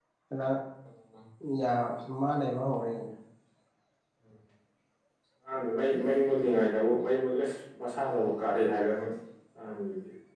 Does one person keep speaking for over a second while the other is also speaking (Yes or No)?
No